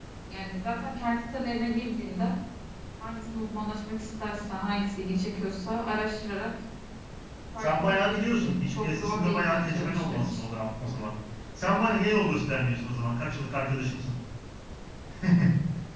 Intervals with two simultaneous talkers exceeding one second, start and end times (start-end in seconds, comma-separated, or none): 7.6-10.4